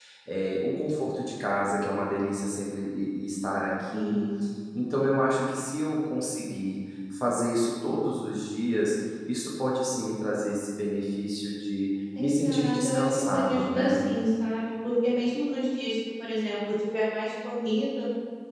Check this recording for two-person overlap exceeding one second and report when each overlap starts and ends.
12.2-14.0

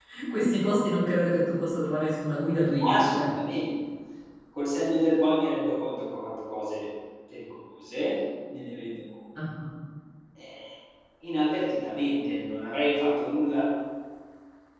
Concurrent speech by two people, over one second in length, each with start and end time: none

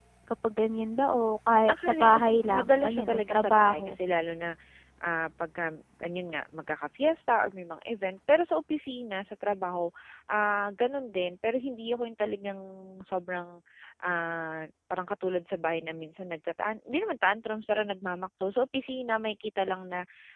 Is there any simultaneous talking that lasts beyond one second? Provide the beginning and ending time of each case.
1.7-4.0

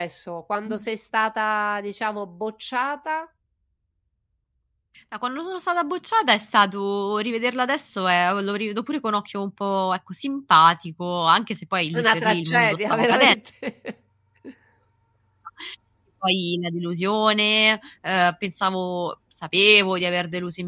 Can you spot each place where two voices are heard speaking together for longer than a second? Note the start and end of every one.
11.9-13.3

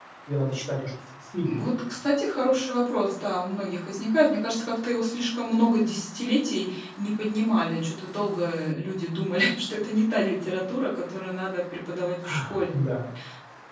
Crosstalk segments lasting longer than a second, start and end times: none

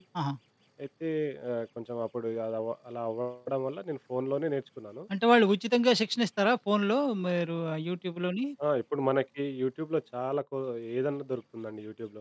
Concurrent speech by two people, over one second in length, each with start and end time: none

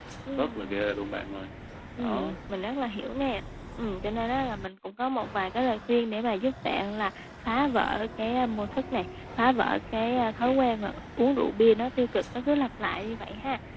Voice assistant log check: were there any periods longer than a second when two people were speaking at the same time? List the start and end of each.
none

